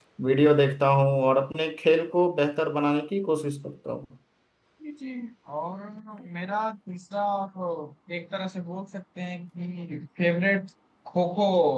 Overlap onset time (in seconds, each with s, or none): none